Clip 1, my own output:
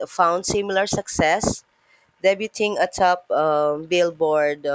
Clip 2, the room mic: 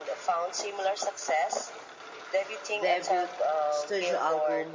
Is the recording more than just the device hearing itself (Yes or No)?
Yes